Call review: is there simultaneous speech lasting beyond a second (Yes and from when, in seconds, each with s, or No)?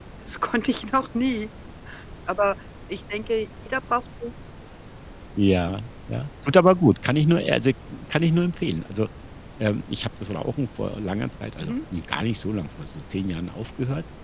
No